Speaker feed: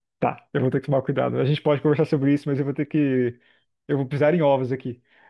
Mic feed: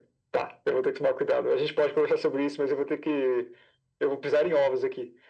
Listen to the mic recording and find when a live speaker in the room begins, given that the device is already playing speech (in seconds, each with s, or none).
none